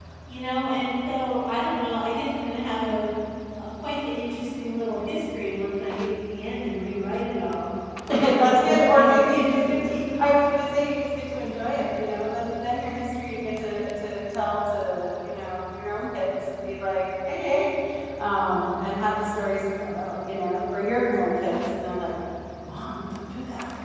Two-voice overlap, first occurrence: 8 s

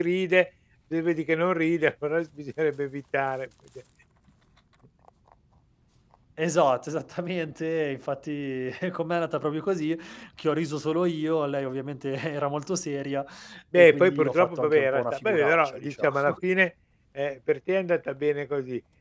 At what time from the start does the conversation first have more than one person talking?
14 s

